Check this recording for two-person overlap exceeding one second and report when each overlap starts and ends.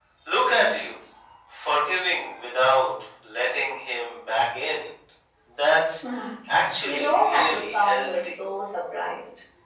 6.8-8.4

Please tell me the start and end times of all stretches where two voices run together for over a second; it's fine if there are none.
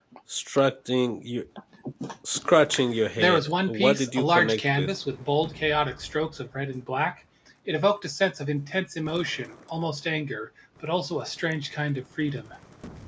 3.2-4.9

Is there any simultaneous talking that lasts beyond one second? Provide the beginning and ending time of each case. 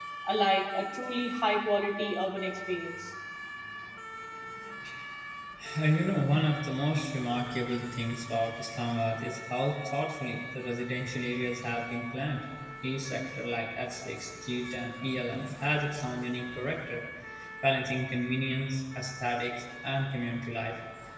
none

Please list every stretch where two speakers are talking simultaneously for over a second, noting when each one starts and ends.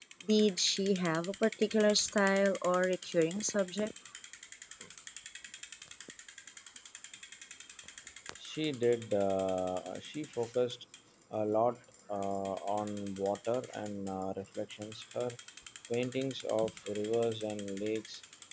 none

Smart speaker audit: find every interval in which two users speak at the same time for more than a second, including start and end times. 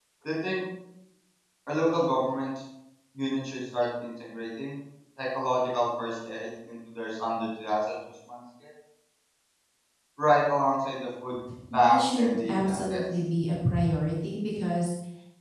11.7-13.0

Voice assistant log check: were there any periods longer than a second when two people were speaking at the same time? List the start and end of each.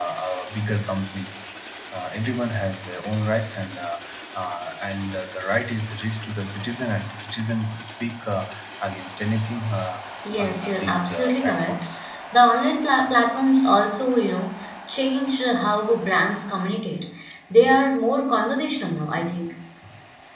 10.4-11.8

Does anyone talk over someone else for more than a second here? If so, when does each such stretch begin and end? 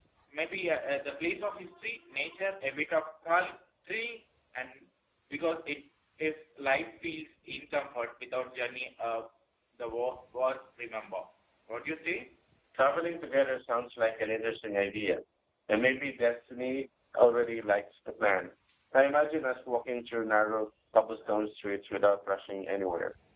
none

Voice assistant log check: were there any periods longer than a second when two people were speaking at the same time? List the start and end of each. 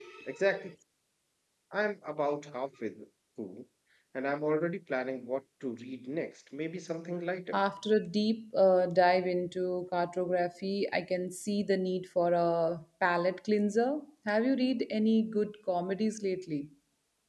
none

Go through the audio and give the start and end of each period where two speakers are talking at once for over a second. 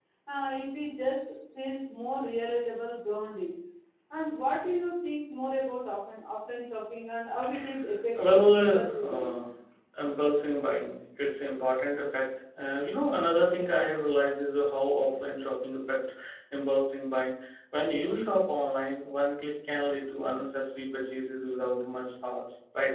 8.2-9.3

